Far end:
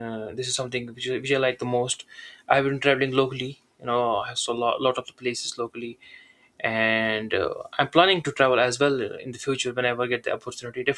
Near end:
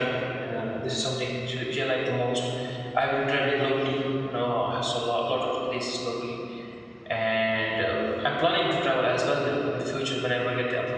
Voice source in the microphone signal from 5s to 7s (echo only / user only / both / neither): echo only